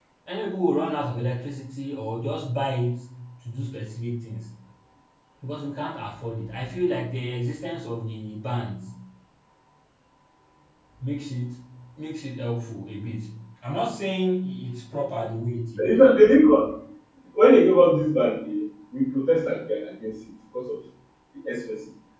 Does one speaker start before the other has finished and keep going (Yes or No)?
No